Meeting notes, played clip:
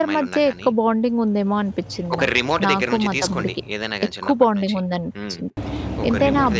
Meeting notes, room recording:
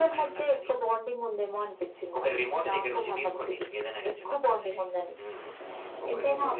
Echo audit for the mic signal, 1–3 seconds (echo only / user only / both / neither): echo only